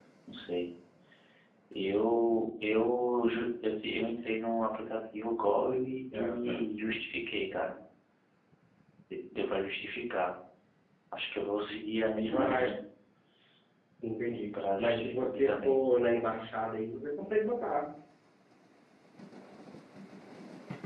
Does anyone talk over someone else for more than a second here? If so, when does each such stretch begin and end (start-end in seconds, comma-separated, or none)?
14.5-15.8